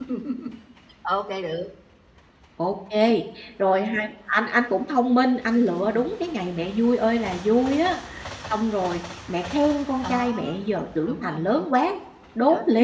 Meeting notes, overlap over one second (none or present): none